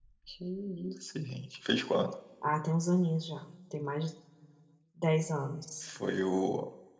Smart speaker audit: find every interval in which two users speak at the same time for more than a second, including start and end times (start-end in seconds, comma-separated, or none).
none